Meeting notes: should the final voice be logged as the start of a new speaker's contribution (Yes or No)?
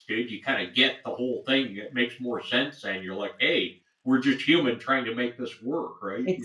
Yes